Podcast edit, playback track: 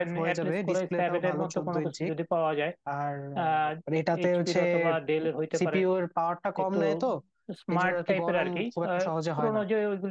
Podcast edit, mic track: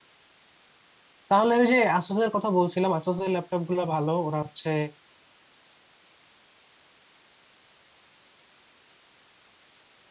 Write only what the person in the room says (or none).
তাহলে ওই যে আসুসের কথা বলছিলাম আসুসের ল্যাপটপ গুলো ভালো ওরা হচ্ছে